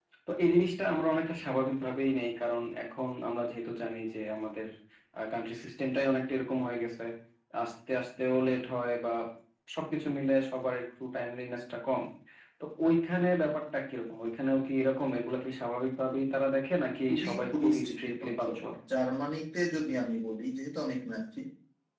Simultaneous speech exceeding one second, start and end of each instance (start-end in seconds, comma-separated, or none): 17.1-18.6